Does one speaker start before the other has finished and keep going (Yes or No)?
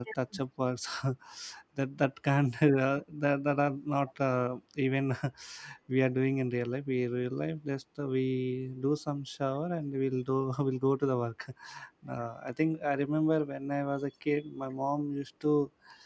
No